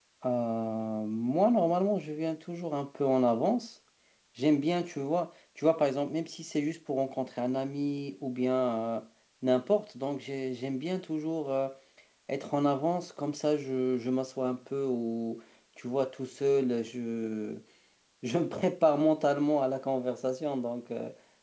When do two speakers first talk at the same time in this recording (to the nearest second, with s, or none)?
none